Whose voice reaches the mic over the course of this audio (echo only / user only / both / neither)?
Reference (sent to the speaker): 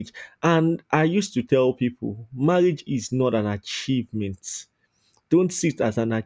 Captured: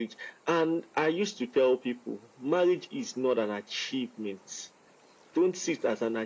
echo only